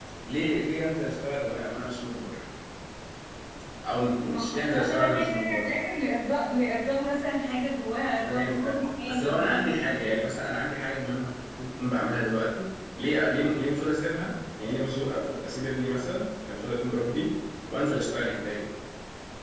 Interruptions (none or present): present